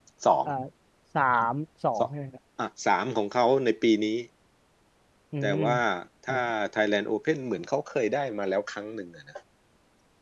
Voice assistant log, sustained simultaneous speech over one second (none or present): none